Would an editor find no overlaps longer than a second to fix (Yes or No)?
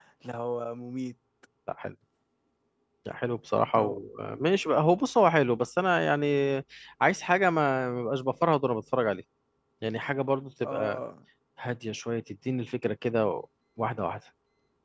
Yes